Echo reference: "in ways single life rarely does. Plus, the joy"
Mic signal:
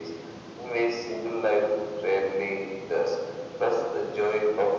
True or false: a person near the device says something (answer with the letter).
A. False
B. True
A